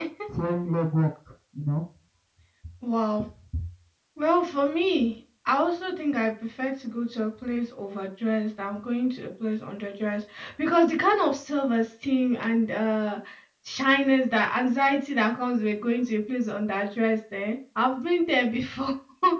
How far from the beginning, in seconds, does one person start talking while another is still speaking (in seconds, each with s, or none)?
none